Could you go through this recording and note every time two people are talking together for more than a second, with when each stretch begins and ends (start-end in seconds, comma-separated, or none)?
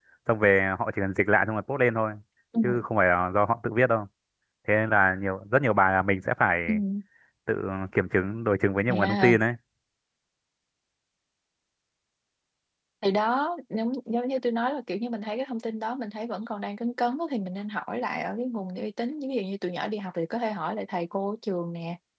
none